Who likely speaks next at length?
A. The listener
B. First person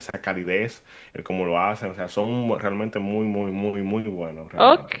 A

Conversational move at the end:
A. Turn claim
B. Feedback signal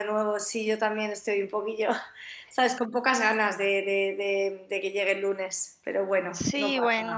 A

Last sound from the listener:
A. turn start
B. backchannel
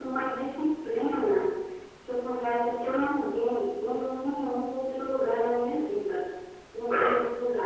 B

